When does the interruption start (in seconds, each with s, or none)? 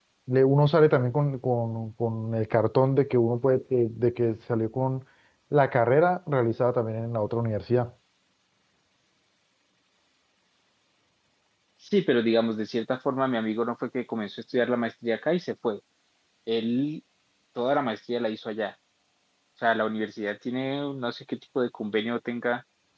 none